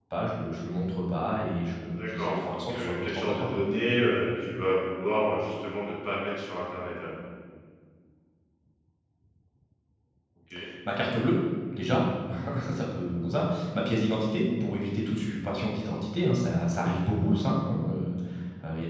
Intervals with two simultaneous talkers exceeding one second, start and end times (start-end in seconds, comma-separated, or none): 2.0-3.5